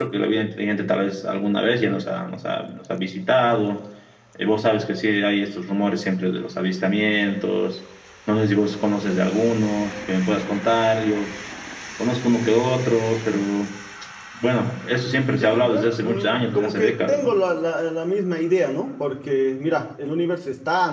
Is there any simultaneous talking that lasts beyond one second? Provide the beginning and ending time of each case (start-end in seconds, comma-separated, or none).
15.4-17.3